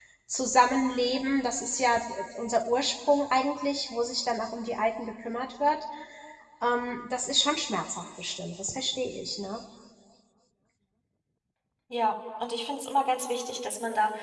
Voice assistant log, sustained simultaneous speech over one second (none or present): none